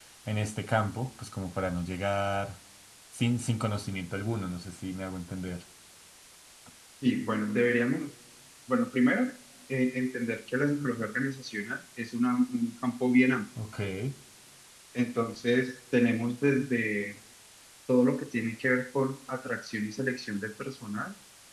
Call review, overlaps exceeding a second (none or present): none